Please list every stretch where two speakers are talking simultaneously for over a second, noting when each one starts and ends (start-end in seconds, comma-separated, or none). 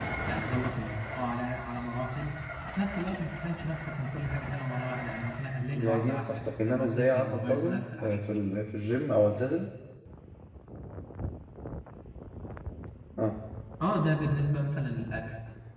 5.8-8.2